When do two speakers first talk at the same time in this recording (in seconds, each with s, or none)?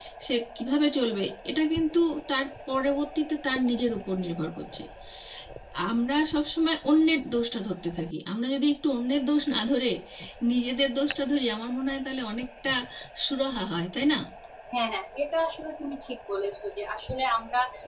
none